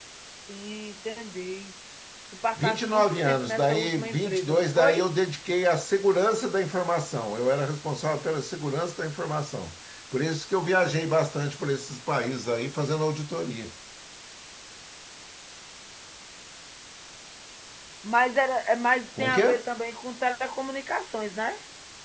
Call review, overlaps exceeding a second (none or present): present